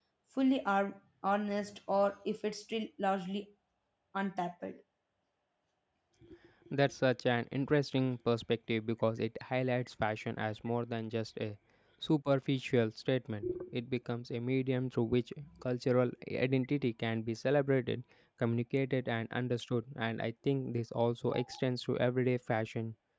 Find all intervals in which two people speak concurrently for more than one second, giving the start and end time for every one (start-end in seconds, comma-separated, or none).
none